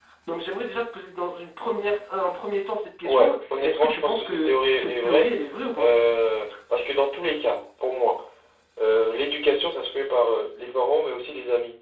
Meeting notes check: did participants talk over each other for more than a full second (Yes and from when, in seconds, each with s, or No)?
Yes, from 3.0 s